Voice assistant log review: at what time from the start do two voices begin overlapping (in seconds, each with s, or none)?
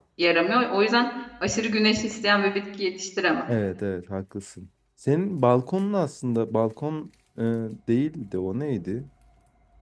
none